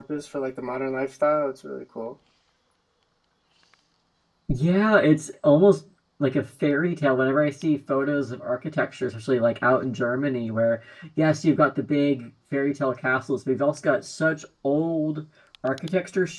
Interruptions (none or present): none